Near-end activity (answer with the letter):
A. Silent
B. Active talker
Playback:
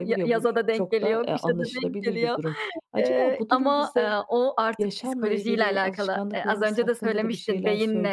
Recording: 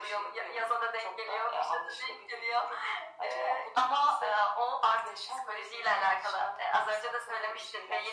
A